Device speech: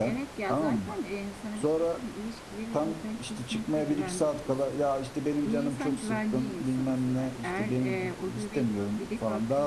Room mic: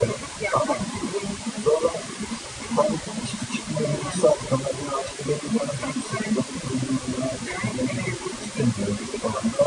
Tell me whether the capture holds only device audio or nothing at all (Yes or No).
Yes